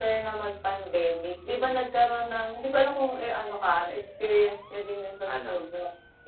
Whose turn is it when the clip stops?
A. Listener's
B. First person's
B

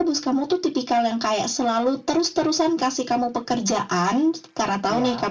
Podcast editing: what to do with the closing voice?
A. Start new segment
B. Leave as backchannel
B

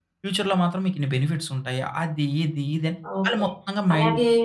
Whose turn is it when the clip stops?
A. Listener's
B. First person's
A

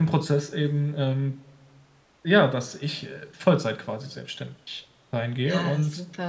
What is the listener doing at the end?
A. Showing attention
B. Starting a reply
B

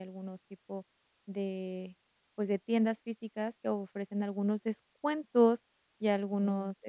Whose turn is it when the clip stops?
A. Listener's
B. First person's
B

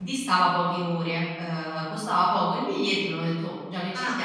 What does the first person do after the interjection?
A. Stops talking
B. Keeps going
A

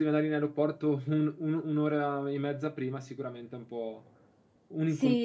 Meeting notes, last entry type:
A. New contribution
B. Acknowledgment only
A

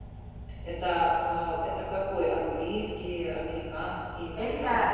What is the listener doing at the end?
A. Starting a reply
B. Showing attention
A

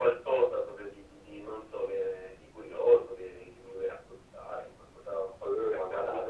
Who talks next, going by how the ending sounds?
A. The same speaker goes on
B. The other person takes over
B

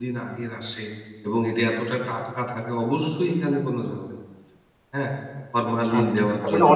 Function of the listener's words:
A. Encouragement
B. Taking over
B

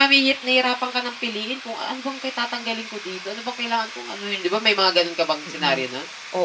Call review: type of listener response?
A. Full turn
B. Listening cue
A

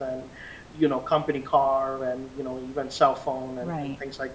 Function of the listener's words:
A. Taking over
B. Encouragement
A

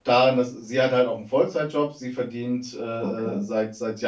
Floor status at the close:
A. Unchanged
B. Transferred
A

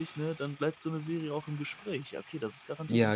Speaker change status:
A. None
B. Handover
B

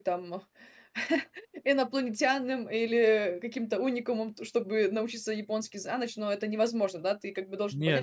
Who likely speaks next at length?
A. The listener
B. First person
A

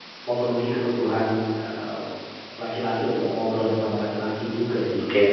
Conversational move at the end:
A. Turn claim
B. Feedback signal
A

